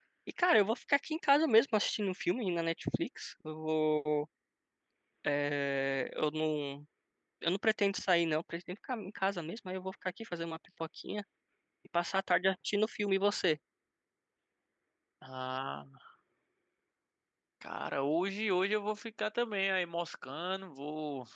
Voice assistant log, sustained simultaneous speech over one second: none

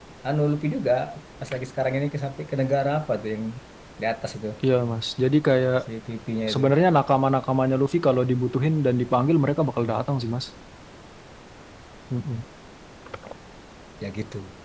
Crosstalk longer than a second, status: none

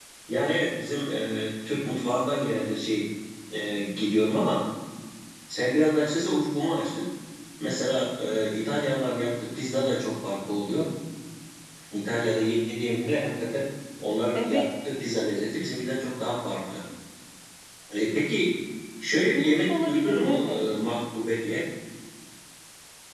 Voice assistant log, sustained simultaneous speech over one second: present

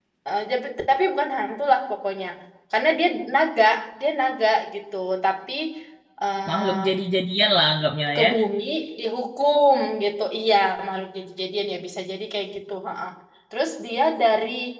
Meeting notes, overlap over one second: none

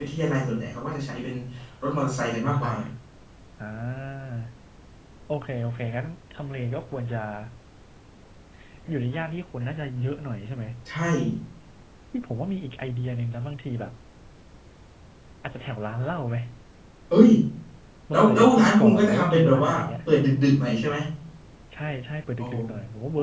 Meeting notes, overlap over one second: present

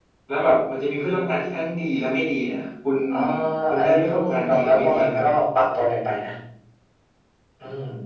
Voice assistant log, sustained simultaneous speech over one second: present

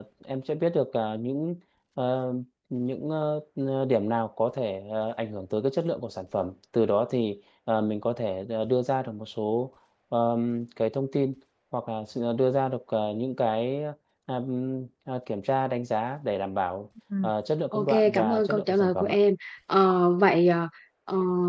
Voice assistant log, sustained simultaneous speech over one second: present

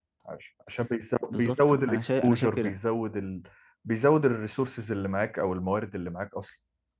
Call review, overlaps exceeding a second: present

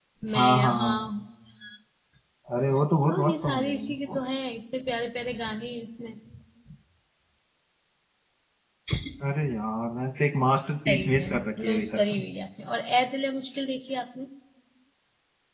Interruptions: present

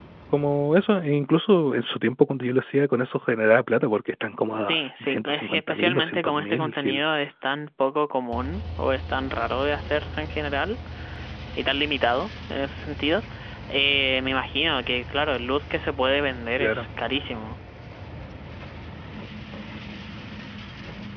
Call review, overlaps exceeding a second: present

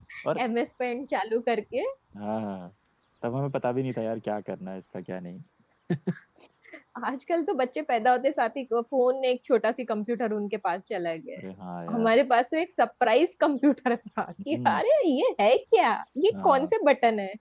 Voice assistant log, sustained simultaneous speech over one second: none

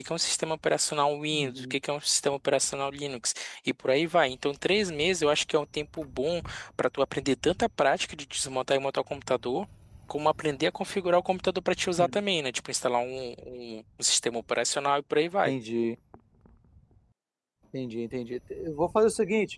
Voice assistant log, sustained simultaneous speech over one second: none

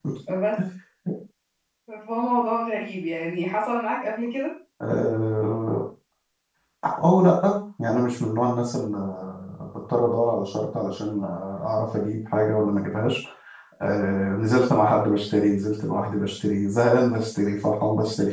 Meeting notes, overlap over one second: none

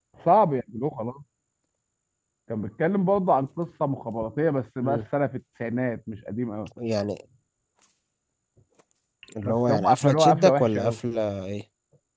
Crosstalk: present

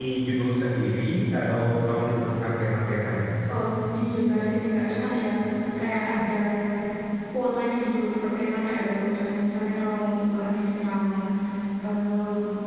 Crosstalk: none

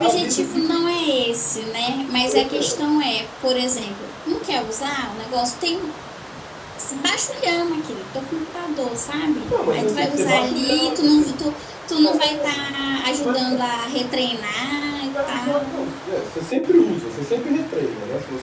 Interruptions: present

